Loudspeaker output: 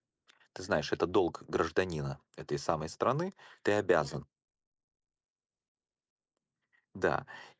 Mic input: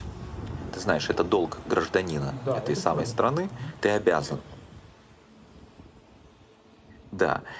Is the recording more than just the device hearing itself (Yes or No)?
Yes